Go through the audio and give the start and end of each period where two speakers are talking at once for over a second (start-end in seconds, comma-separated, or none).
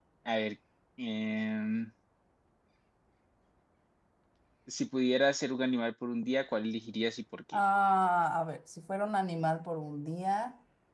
none